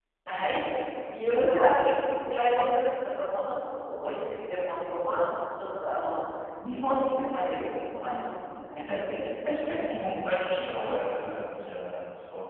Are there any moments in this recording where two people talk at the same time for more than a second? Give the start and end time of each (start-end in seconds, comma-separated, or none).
none